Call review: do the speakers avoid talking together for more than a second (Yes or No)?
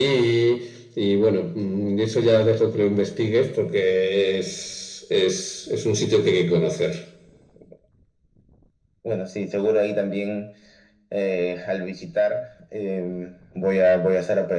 Yes